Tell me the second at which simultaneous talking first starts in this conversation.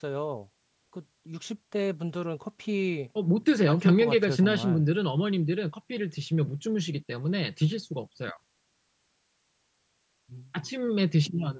3.7 s

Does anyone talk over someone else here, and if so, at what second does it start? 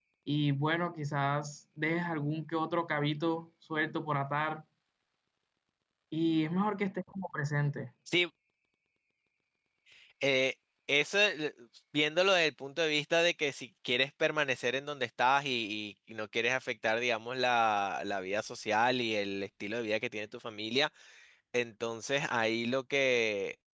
none

